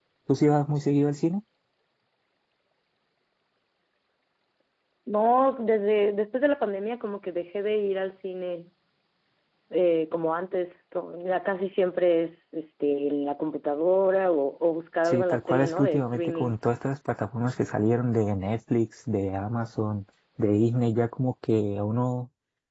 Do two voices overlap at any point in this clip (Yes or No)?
Yes